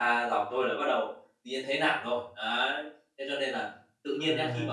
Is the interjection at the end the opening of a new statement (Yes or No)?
No